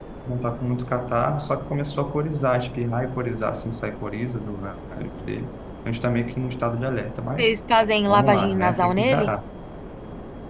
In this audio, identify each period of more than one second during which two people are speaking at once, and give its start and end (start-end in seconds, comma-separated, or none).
8.1-9.3